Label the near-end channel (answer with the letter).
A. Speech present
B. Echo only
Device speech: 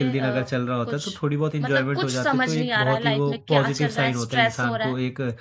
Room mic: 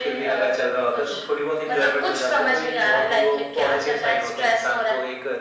B